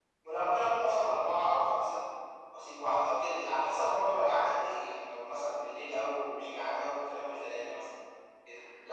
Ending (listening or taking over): listening